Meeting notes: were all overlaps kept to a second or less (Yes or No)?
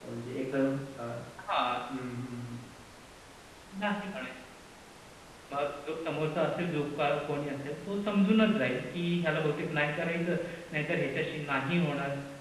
Yes